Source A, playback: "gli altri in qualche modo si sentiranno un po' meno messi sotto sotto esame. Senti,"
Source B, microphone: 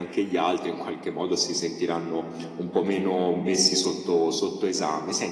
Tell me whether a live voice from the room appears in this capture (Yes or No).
No